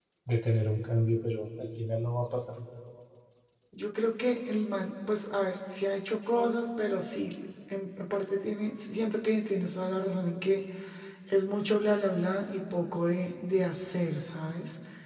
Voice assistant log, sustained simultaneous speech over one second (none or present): none